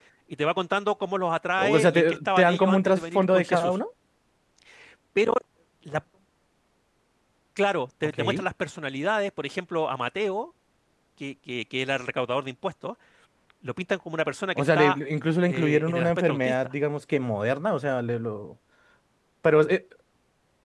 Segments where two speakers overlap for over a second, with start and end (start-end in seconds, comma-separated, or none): 1.6-3.8, 15.5-16.7